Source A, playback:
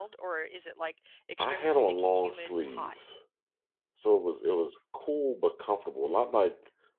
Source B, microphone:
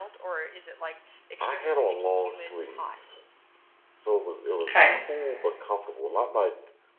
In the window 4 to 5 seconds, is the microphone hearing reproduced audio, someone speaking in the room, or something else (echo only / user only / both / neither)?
both